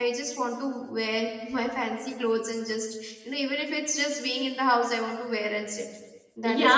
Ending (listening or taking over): taking over